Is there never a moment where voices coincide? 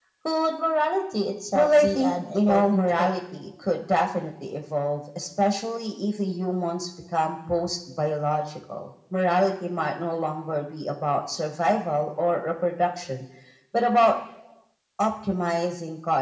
No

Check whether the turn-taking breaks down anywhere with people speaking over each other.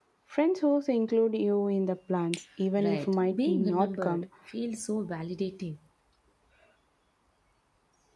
Yes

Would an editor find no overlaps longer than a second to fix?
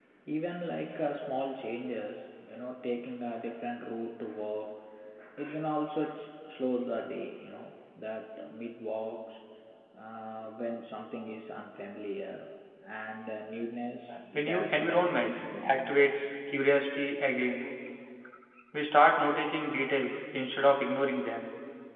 No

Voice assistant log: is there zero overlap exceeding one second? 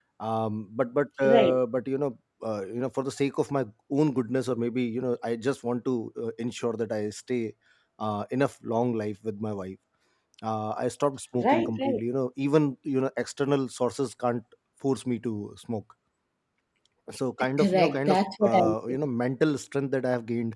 No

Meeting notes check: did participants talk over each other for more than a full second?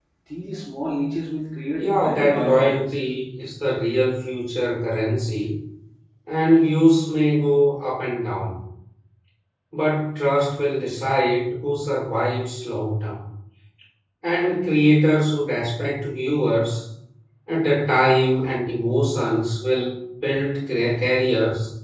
Yes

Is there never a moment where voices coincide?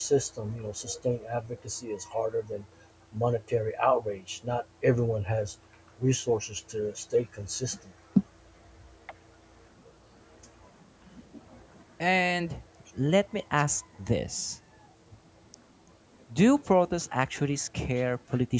Yes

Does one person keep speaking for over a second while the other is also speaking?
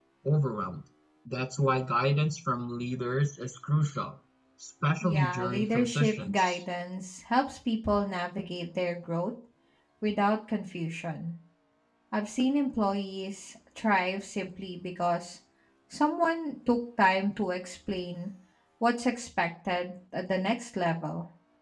Yes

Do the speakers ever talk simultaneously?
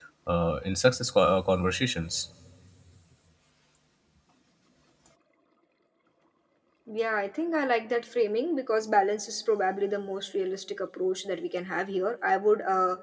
No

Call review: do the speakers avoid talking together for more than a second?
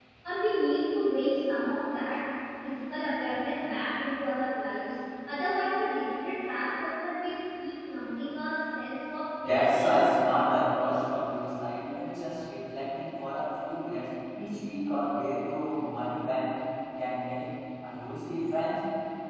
No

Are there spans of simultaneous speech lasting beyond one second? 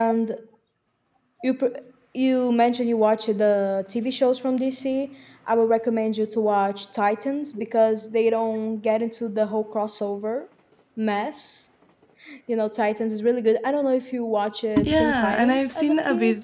Yes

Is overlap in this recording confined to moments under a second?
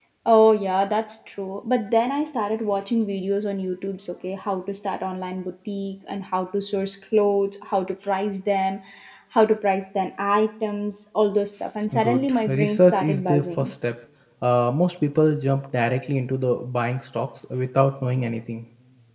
No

